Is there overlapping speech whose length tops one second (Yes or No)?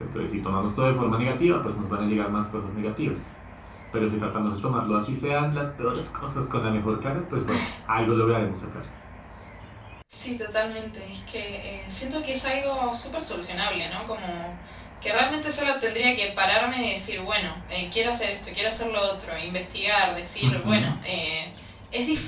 No